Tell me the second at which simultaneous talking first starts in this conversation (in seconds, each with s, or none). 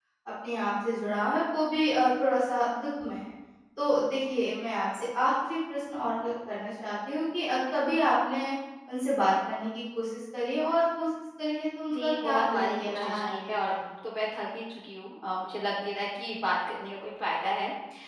11.9 s